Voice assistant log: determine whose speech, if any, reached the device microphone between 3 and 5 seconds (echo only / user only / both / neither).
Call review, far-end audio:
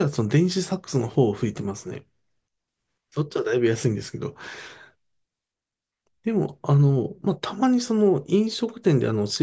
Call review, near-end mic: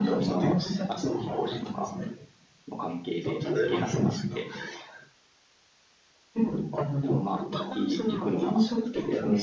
both